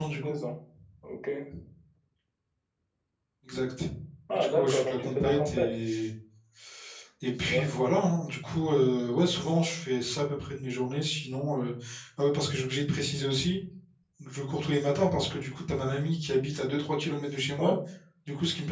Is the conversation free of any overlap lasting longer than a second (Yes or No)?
No